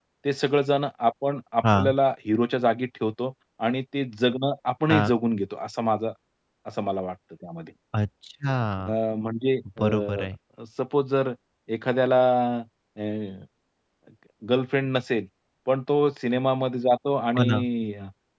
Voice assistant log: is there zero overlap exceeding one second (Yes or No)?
Yes